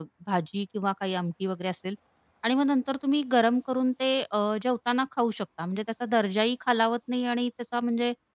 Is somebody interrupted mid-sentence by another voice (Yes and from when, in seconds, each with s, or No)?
No